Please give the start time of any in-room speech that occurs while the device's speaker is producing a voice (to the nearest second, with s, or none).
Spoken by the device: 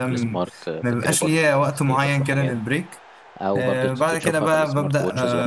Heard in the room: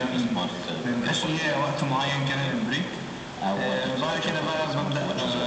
none